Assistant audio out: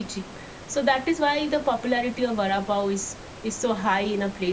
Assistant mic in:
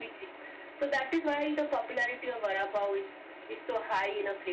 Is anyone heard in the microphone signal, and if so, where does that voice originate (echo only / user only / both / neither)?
echo only